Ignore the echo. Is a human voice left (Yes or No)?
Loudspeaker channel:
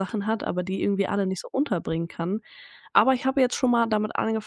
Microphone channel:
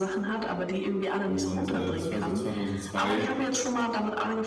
Yes